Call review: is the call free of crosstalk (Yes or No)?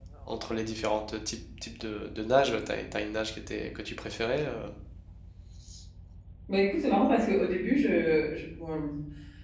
Yes